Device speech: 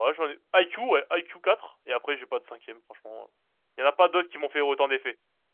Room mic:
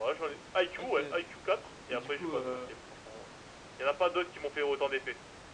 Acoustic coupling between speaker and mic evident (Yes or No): Yes